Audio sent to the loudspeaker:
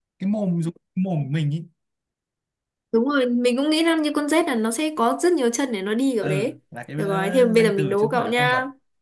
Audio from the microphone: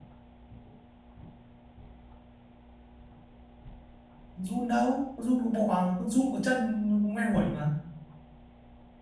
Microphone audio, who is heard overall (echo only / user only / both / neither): user only